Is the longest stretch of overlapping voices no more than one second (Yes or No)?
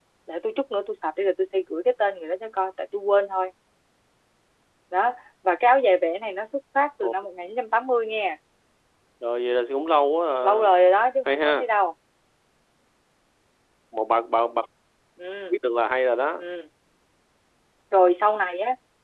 Yes